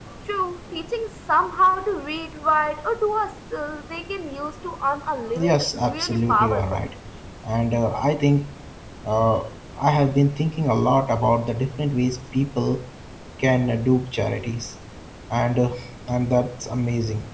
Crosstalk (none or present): present